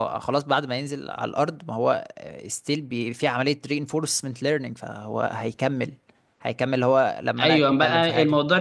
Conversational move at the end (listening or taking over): taking over